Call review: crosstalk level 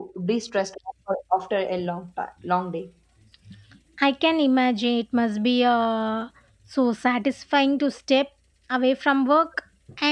none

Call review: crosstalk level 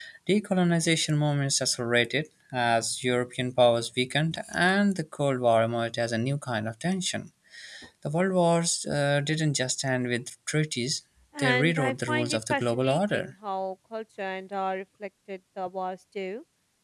present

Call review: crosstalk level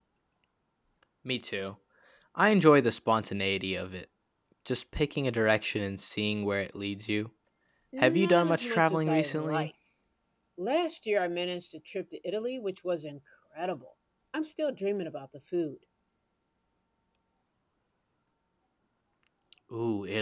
present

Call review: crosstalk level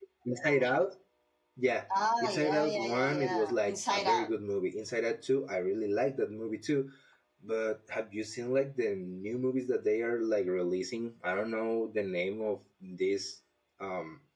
present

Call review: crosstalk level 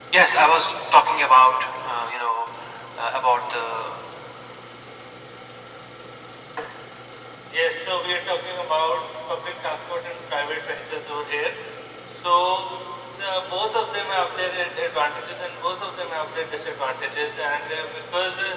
none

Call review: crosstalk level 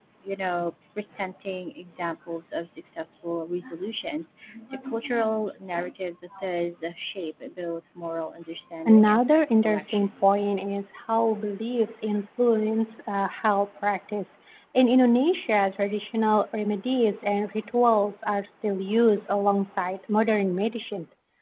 present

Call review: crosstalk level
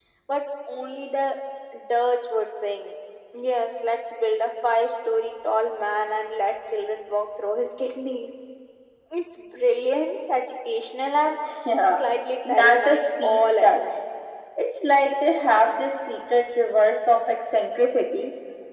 present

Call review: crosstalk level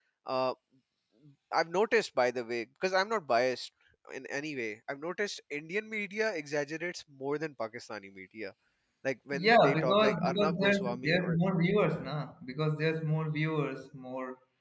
present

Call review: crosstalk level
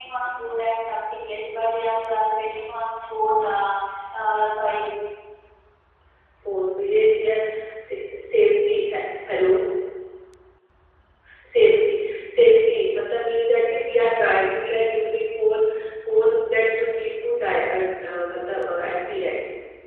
none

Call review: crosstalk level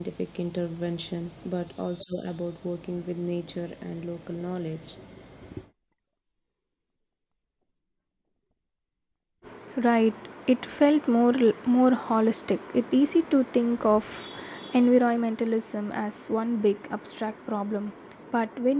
none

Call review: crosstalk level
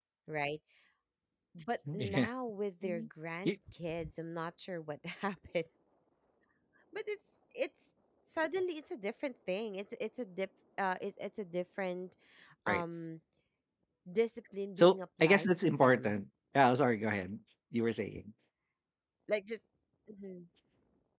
present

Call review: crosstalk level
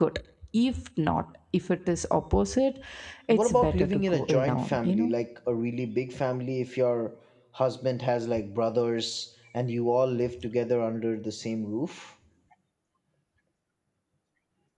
present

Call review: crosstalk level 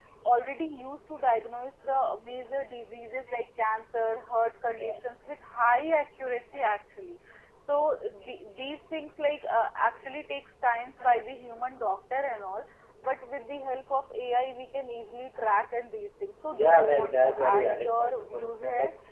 present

